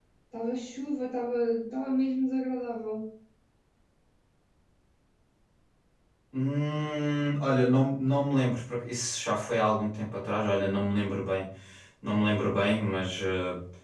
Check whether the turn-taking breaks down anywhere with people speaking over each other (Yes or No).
No